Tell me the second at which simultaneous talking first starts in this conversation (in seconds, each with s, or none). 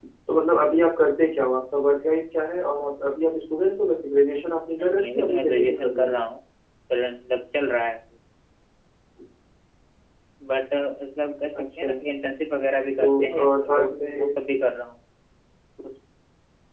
4.8 s